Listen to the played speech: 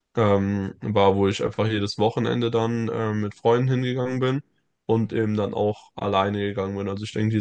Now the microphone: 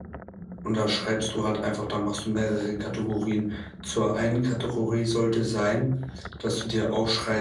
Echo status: none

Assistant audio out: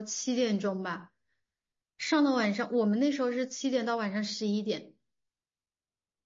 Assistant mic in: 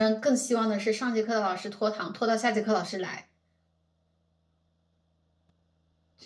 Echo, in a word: none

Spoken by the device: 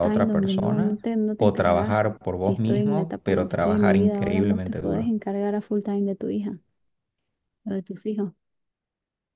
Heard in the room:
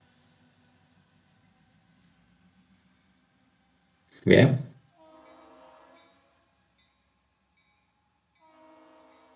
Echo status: none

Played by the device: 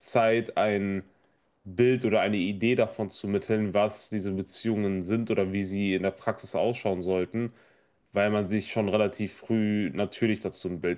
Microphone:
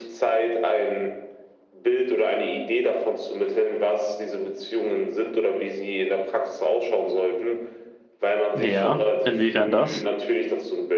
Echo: present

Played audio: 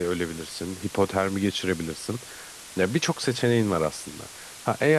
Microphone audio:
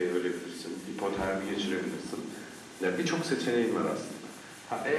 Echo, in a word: present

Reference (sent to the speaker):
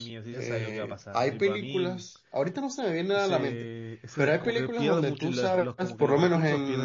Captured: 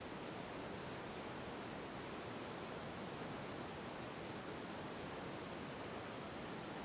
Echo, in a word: none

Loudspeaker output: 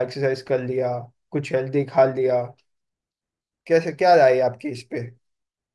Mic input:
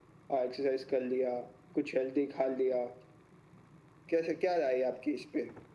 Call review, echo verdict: present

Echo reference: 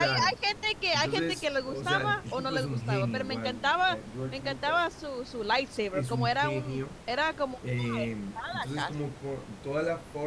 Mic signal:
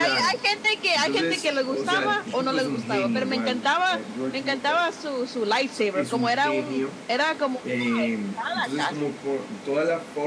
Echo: present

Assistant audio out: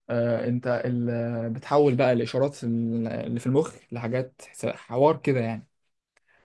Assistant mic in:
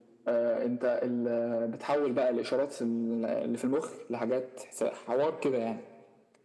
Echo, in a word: present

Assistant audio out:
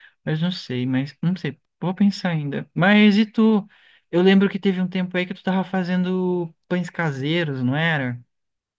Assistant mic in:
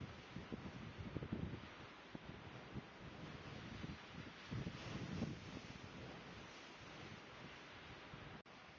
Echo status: none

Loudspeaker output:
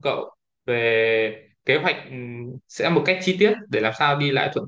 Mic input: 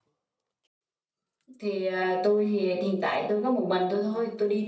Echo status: none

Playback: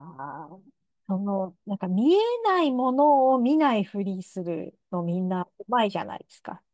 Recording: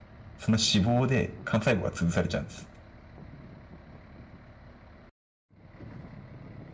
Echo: none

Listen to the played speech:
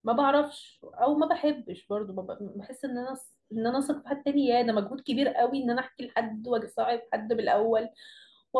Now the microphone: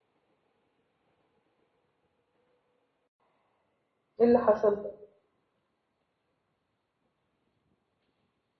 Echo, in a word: none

